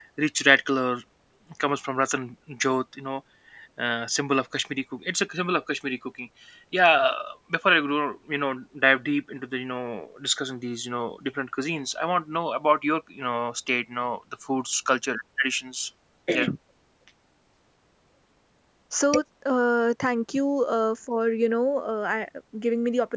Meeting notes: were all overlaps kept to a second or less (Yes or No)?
Yes